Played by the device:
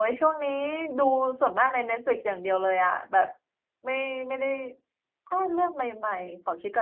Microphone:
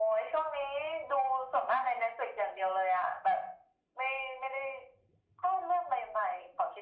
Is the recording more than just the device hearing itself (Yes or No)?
No